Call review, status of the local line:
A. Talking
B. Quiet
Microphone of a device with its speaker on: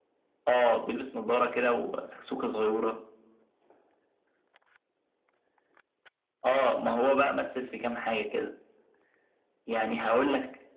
B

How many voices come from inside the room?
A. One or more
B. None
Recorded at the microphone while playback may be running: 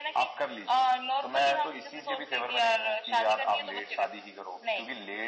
B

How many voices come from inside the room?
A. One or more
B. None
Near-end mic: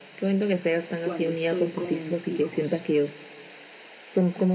A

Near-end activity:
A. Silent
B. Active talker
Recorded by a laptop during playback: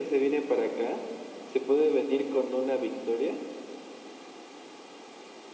A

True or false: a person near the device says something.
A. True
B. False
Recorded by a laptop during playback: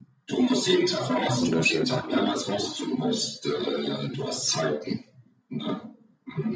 A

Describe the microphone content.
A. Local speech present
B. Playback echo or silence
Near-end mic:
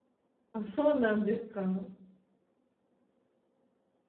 A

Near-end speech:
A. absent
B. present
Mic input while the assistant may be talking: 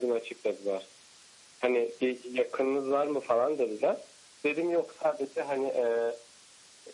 A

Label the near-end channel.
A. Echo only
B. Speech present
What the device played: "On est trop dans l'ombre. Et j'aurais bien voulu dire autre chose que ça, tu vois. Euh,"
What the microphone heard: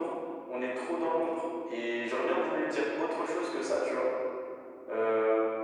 A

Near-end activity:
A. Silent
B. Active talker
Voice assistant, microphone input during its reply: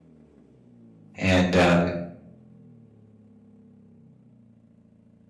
B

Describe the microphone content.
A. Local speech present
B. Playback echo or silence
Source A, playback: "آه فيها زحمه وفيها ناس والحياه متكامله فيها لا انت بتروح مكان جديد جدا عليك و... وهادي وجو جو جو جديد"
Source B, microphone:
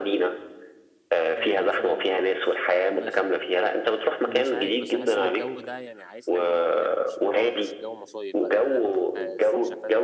A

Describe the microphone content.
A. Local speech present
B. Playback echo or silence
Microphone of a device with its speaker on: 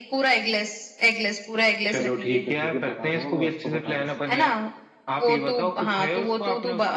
A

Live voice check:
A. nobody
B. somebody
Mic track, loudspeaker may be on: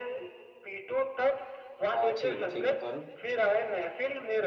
B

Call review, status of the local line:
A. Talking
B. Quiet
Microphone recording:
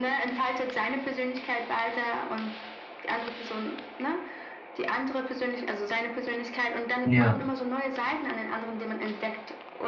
A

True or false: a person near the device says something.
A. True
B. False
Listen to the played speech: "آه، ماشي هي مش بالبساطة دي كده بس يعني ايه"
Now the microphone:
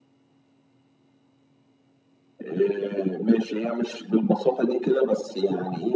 B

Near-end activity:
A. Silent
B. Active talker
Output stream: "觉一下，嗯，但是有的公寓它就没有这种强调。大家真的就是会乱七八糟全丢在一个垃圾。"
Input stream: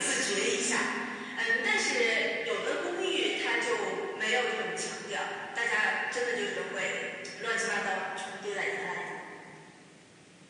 A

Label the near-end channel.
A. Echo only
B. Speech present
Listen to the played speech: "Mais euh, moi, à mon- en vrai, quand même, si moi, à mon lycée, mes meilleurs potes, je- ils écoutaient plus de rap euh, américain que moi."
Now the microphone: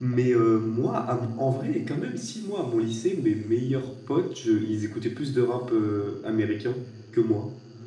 A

